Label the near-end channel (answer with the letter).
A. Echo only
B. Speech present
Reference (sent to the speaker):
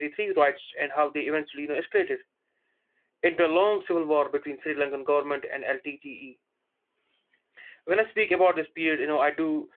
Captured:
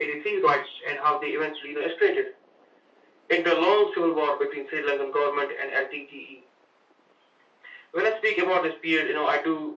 A